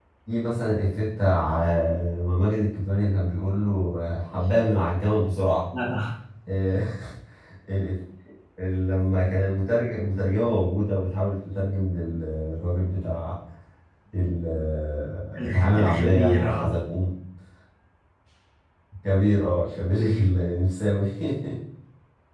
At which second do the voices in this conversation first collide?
15.3 s

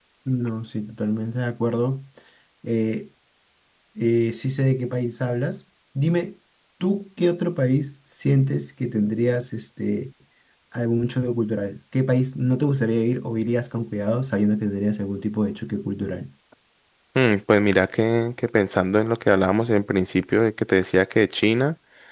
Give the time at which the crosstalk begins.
none

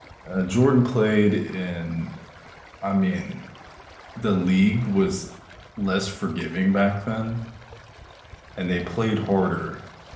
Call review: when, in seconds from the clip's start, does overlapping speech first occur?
none

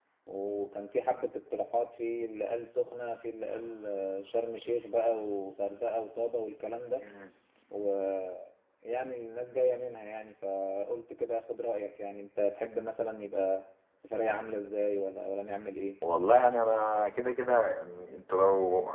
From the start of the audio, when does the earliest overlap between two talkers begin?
none

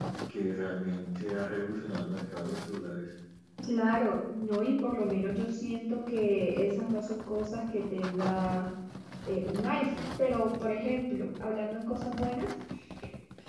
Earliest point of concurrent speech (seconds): none

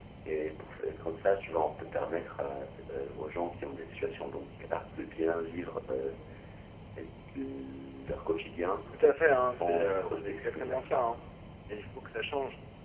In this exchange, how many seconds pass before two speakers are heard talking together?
9.4 s

